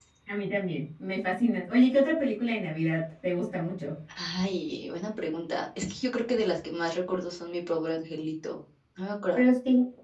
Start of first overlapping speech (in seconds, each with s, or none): none